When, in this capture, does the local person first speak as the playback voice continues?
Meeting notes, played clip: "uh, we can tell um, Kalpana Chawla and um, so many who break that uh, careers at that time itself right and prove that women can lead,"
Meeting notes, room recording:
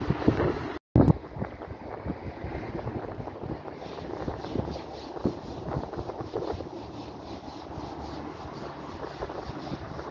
none

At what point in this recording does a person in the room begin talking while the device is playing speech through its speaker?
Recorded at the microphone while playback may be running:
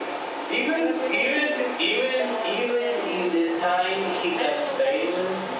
0.7 s

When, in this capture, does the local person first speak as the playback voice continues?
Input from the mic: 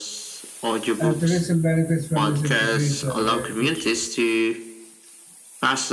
1.0 s

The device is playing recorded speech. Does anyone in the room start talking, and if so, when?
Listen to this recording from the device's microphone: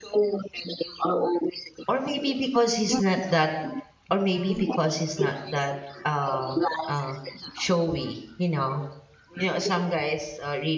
1.9 s

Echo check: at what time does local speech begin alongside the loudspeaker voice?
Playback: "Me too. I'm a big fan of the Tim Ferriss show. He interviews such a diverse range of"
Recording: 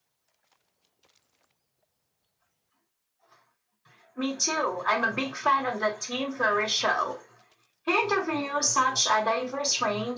none

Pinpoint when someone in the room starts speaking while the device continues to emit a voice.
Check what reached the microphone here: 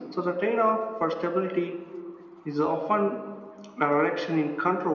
none

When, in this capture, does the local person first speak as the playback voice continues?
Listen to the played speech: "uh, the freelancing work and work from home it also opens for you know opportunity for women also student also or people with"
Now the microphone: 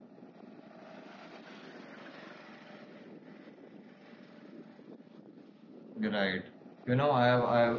6.0 s

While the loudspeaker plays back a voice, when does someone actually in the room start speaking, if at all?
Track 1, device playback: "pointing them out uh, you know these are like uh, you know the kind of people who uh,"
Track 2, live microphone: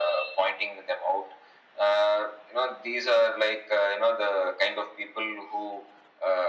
none

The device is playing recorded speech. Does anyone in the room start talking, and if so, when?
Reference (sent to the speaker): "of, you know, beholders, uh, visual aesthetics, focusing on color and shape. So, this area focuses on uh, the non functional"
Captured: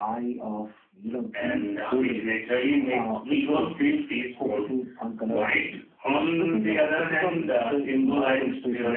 1.3 s

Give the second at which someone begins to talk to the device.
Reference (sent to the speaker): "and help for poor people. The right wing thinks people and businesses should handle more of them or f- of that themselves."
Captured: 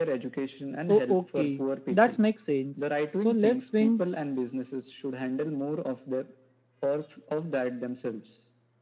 0.9 s

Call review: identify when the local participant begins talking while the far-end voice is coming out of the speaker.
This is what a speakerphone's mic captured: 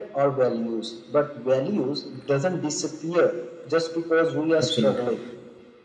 4.6 s

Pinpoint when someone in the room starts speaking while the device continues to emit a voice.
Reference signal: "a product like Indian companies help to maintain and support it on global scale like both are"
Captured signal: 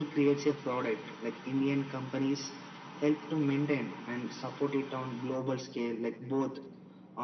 none

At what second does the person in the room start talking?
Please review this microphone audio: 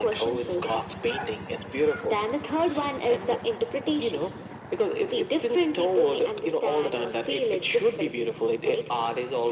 none

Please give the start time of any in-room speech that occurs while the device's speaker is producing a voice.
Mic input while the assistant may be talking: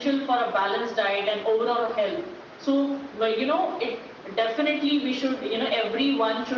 none

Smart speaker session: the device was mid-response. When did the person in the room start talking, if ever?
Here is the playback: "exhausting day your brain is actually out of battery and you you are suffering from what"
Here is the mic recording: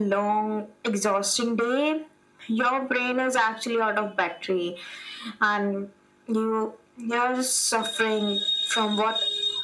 none

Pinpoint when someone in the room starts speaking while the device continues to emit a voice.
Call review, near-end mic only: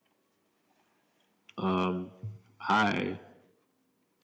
1.6 s

